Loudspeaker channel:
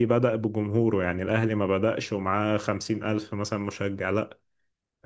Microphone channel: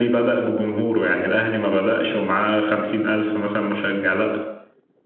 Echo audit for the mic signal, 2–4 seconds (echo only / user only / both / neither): echo only